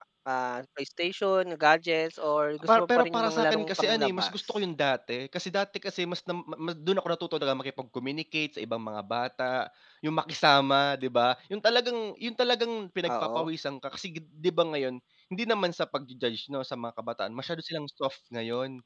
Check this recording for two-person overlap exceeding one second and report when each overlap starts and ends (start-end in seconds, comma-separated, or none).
2.7-4.3